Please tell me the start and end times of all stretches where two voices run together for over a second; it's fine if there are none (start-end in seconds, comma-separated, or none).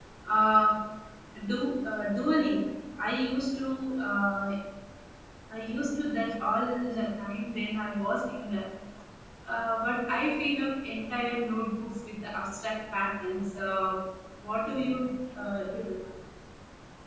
none